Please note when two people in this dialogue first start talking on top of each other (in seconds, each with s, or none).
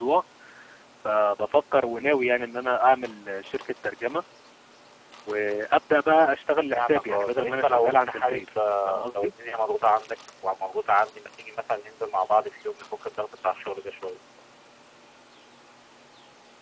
6.7 s